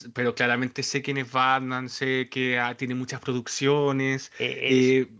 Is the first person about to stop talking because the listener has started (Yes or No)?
Yes